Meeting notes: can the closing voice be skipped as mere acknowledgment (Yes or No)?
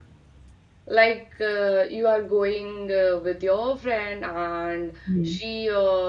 Yes